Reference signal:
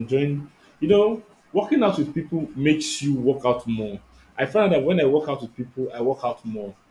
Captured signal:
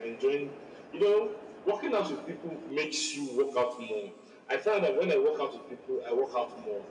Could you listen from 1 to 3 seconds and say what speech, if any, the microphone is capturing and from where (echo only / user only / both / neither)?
echo only